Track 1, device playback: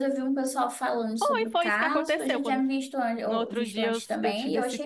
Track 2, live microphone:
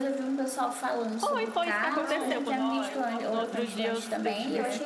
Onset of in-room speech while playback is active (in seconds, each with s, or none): 1.9 s